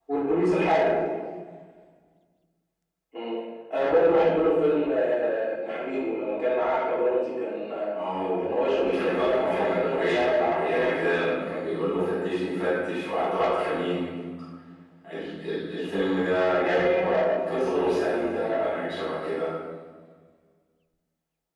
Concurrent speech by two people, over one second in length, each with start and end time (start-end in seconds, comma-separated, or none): 8.4-11.1, 16.6-18.7